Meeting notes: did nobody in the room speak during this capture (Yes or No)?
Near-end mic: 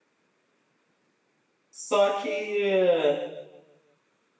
No